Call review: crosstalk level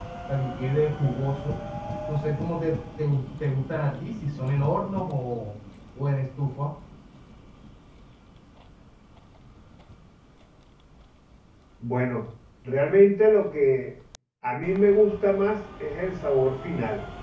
none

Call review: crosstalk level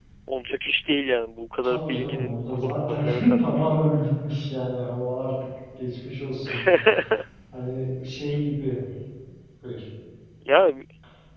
present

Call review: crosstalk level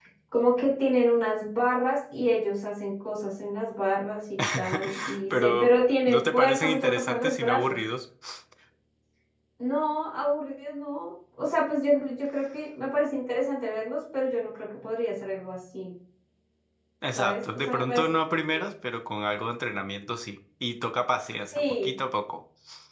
present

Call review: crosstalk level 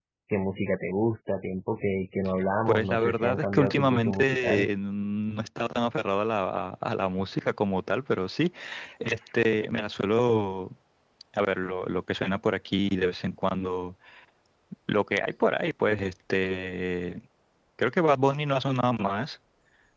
present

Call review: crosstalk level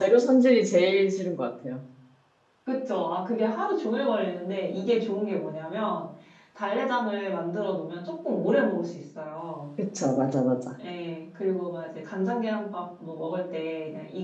none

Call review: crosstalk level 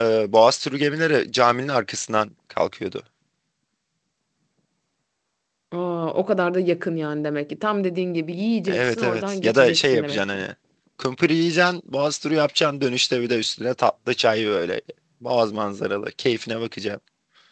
present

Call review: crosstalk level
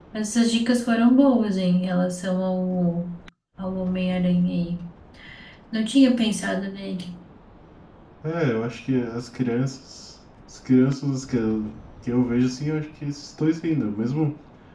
none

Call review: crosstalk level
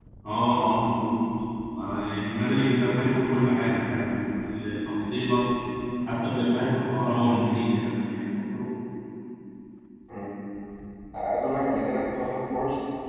none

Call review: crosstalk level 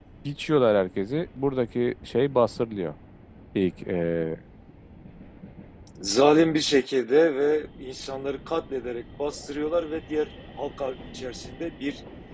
none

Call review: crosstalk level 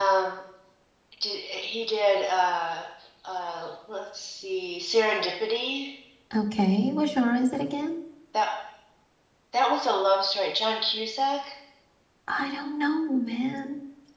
none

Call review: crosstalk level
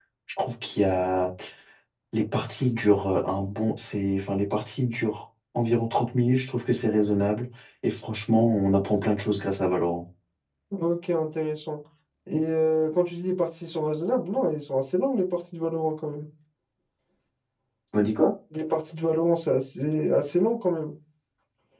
none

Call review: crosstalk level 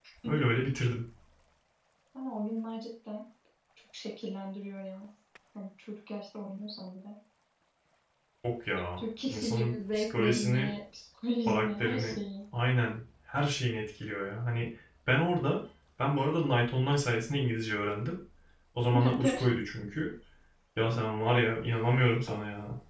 present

